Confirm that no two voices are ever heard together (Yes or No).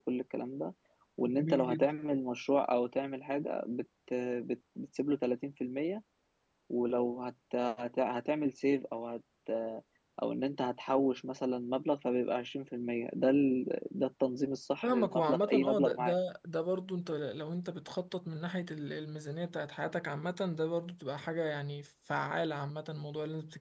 No